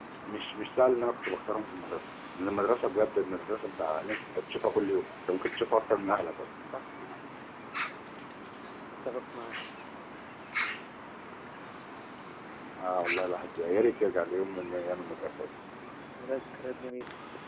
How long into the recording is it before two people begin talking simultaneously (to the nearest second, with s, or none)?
none